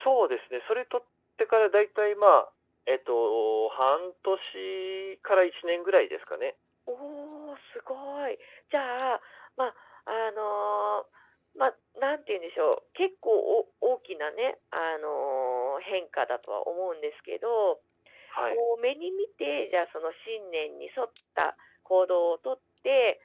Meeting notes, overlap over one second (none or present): none